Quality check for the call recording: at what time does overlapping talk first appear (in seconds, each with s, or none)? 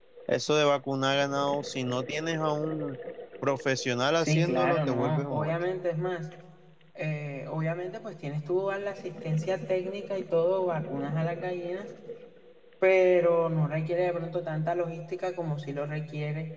4.2 s